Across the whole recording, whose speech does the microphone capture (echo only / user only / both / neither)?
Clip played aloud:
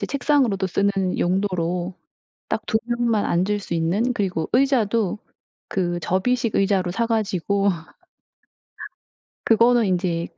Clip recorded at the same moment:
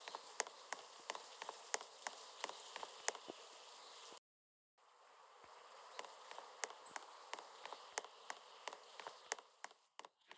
neither